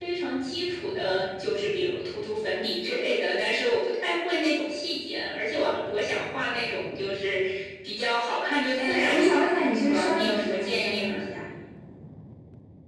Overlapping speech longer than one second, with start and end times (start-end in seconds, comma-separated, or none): 8.8-11.3